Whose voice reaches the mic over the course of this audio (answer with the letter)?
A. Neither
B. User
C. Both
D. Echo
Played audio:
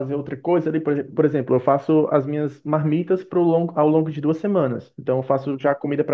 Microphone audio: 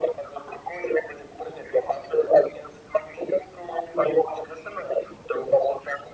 D